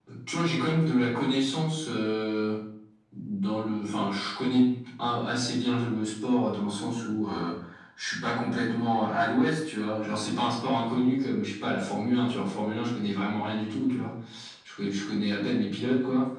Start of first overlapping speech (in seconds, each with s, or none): none